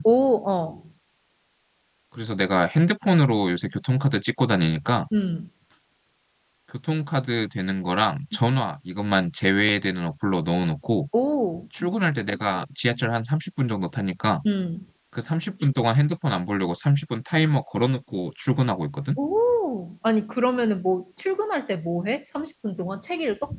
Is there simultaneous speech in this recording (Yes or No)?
No